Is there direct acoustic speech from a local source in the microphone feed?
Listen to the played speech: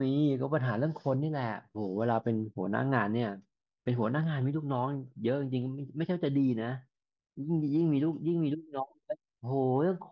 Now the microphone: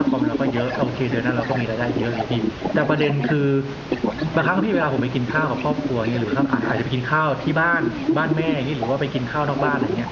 Yes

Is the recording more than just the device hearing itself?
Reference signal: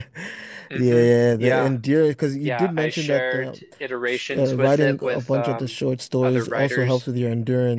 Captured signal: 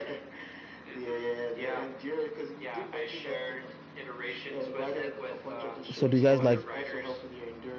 Yes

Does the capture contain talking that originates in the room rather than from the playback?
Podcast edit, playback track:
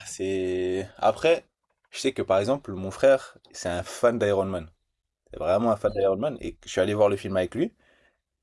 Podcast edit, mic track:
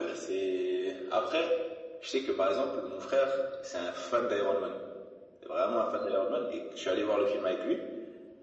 No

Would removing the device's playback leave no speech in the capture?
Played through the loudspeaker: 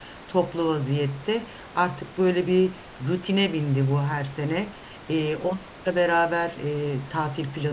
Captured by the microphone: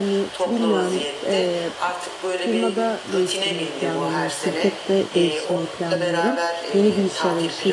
No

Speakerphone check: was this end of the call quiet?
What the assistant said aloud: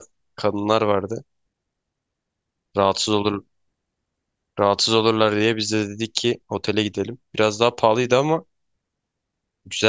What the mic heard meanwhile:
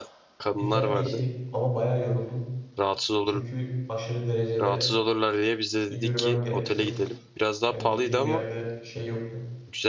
No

